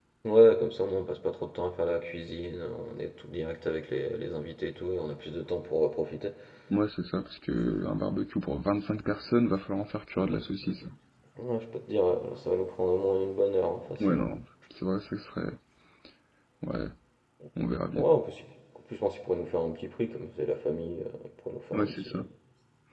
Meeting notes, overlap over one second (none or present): none